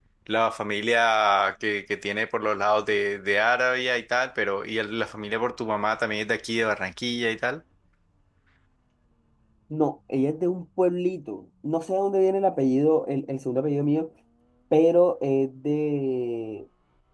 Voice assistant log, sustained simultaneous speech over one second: none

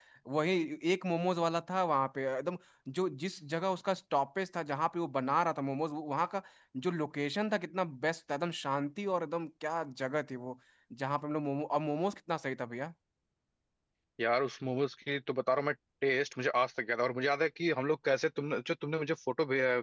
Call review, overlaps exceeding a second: none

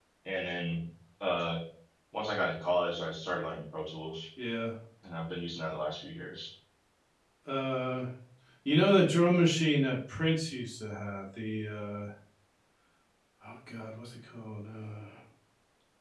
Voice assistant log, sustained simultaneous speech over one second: none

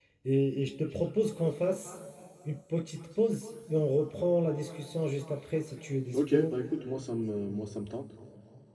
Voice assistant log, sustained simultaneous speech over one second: none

